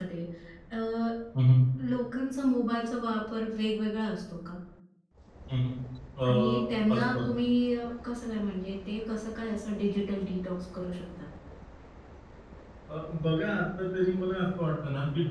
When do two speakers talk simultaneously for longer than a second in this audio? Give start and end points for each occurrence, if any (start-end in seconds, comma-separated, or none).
none